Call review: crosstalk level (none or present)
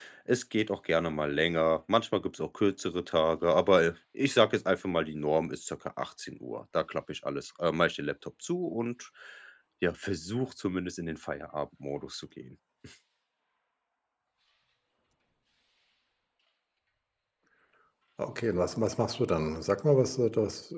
none